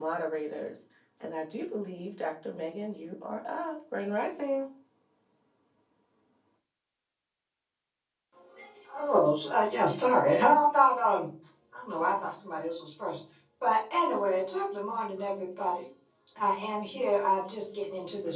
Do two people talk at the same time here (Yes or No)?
No